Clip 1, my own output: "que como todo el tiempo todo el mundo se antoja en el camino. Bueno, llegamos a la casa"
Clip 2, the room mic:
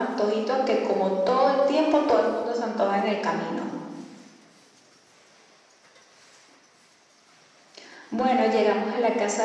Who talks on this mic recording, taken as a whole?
echo only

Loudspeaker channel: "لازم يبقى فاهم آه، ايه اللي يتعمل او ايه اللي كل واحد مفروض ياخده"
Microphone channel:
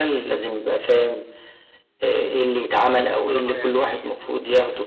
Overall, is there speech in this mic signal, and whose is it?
both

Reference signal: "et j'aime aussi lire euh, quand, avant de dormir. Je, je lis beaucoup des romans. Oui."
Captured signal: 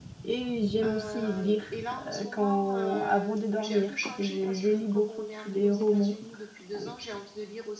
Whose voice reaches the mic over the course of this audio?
both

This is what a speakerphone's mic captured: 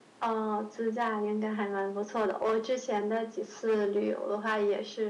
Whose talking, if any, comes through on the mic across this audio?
echo only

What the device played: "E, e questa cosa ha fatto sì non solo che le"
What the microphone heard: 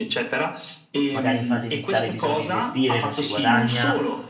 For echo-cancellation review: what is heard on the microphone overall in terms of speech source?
both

